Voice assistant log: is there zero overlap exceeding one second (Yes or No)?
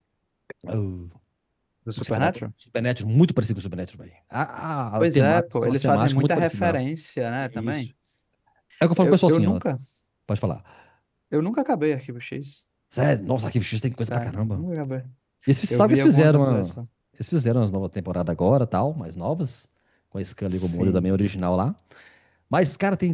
No